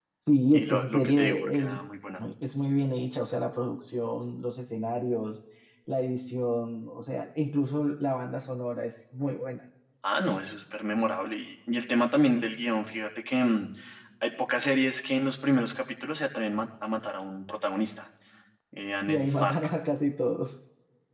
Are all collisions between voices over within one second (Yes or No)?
No